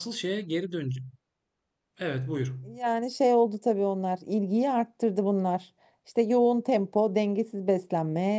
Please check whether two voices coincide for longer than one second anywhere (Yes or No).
No